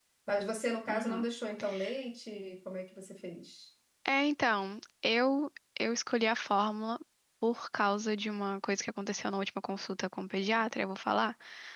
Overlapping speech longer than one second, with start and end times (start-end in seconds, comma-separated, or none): none